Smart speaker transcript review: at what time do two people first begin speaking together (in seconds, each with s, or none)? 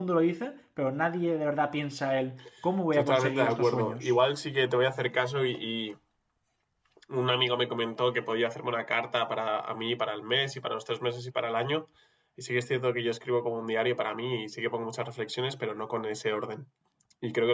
2.9 s